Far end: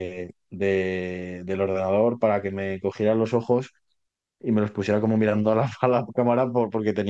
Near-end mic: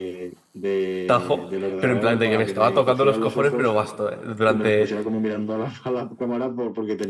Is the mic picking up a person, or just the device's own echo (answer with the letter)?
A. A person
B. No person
A